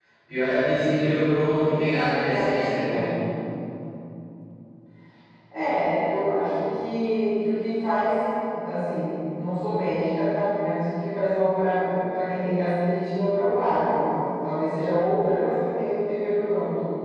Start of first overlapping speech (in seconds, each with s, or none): 1.8 s